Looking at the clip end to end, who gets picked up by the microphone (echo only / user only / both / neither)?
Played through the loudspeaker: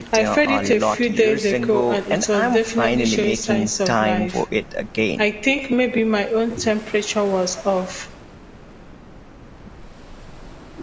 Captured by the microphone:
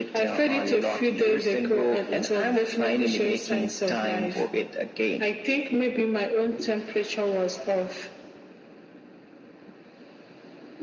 echo only